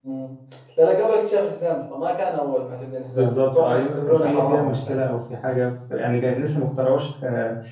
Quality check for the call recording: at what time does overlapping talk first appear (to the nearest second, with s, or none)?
3 s